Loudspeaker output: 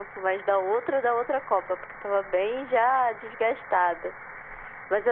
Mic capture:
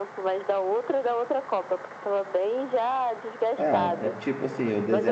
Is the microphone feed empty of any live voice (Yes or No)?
No